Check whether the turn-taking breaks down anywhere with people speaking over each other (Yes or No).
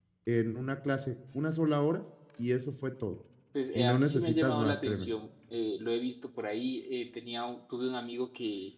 Yes